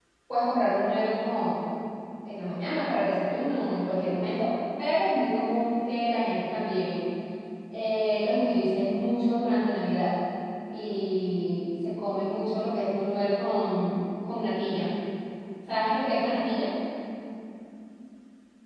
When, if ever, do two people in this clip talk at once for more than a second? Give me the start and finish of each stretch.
none

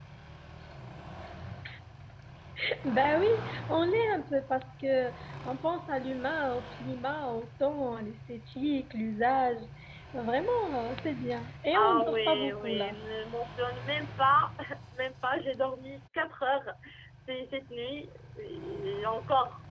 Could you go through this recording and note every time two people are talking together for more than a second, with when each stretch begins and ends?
11.7-12.9

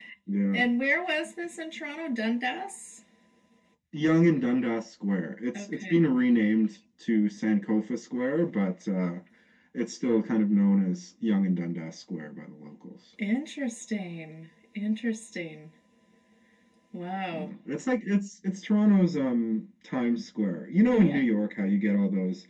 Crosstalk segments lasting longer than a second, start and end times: none

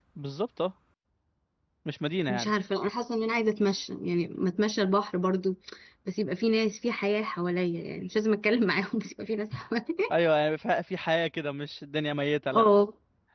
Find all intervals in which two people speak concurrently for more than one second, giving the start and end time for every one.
none

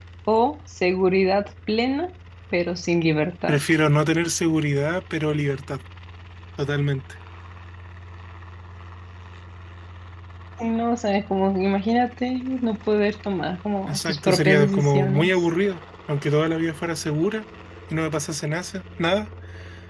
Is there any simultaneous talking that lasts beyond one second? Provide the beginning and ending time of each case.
13.9-15.3

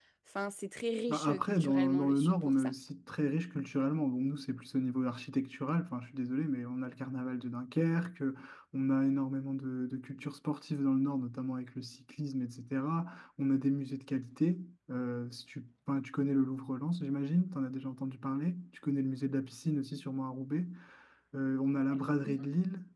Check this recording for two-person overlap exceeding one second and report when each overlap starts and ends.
1.1-2.7

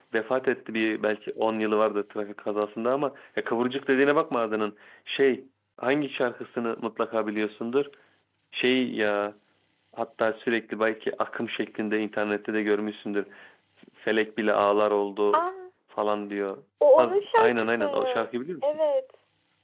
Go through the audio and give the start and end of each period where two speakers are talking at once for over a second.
16.8-18.3

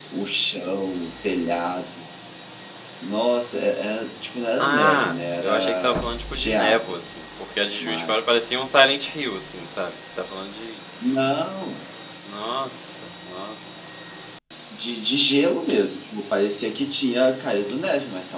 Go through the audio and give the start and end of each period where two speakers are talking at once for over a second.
4.6-6.8

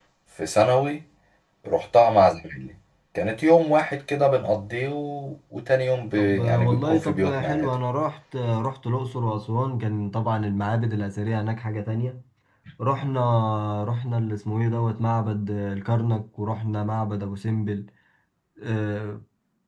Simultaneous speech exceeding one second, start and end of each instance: 6.2-7.7

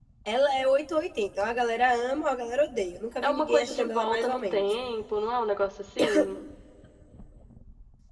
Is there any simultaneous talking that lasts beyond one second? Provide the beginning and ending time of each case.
3.2-4.6

